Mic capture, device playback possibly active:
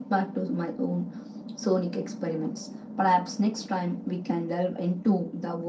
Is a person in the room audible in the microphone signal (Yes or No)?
No